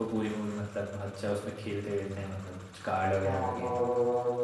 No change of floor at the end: No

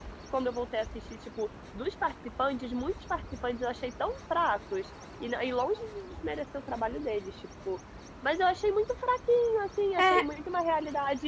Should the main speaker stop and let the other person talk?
No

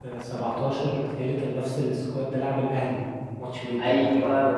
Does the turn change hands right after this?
Yes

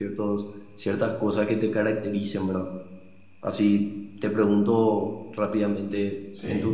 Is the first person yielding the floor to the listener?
No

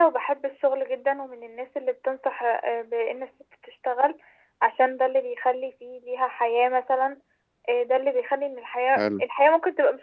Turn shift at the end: No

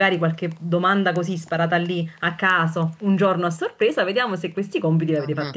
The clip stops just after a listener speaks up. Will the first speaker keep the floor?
Yes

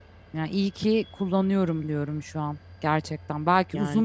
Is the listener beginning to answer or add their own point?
No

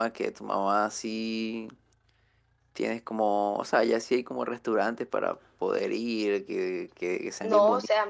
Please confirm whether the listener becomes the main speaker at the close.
Yes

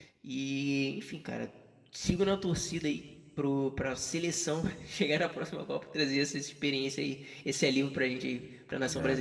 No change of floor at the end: No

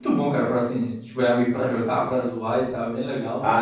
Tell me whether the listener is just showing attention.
No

